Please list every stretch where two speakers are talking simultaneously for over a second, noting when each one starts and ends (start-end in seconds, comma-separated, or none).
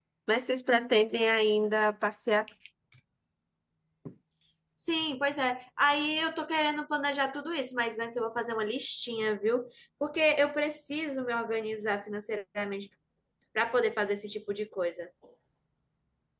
none